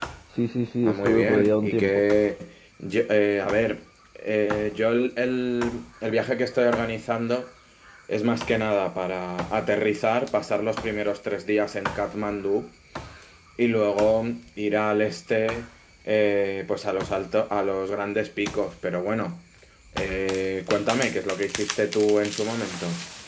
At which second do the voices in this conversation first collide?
0.8 s

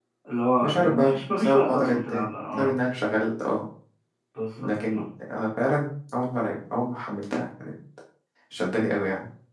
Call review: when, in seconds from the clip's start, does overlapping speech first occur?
0.6 s

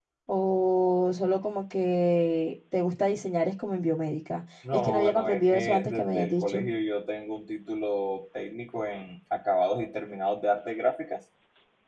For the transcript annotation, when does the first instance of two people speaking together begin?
4.6 s

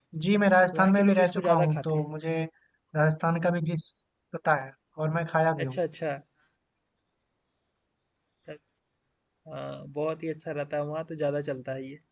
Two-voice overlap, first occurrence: 0.7 s

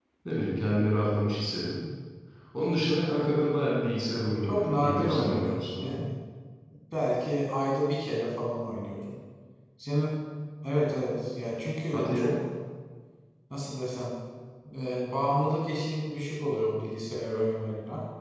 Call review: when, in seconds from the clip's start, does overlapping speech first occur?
4.4 s

